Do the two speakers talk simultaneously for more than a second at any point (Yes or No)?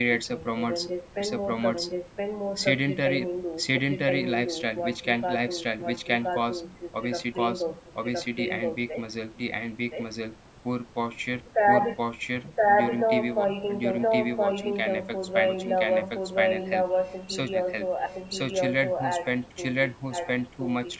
Yes